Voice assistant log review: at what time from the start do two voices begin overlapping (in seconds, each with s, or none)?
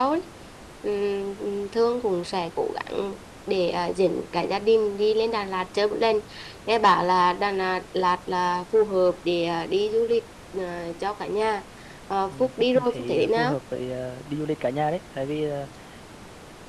12.3 s